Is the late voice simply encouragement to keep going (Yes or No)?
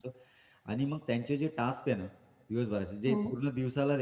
Yes